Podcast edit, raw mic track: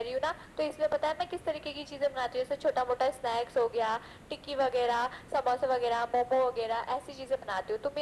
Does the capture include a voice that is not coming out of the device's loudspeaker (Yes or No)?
No